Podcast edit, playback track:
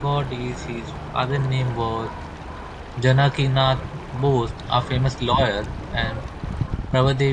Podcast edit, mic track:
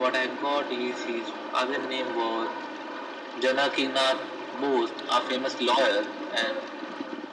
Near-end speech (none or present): none